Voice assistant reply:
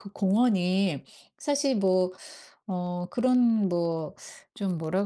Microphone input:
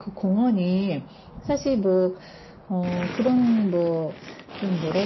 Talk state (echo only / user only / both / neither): echo only